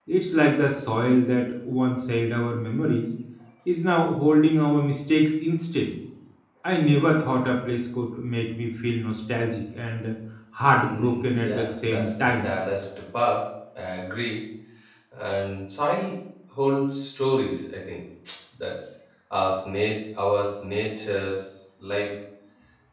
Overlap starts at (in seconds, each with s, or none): 10.7 s